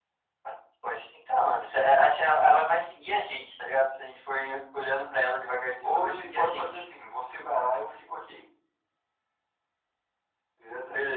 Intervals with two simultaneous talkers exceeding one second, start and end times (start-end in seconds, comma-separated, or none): 5.4-6.8